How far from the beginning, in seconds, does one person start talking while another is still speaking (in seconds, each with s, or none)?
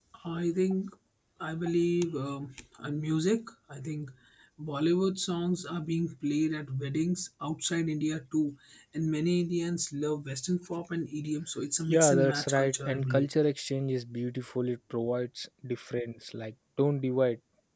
11.9 s